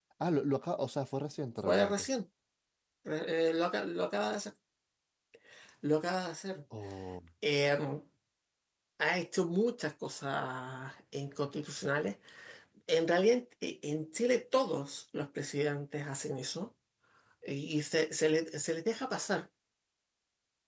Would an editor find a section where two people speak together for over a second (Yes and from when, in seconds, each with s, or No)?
No